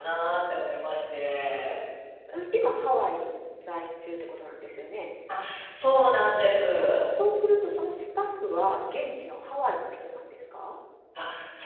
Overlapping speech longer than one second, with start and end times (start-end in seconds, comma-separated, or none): none